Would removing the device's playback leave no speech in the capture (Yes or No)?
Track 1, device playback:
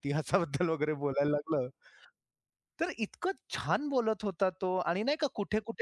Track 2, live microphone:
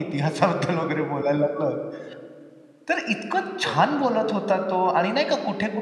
No